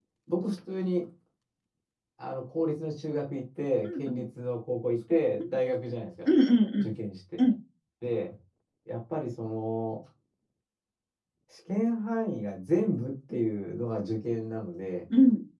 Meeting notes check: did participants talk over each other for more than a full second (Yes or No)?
No